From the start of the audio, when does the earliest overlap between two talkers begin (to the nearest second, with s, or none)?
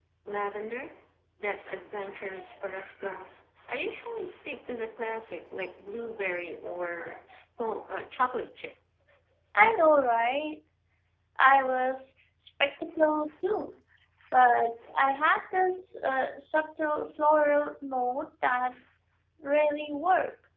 none